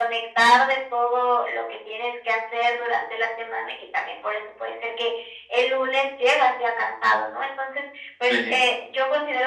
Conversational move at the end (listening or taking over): listening